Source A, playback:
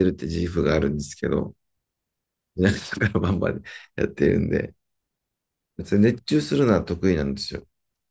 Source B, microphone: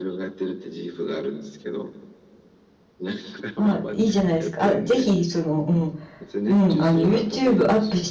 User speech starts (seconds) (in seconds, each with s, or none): 3.6 s